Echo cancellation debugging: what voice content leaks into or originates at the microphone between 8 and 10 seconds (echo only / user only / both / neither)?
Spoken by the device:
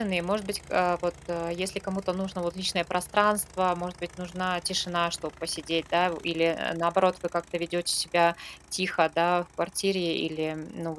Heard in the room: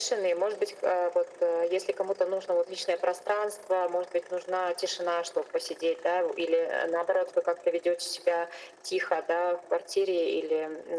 echo only